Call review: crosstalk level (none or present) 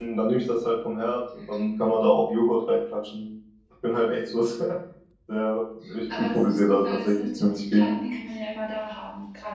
present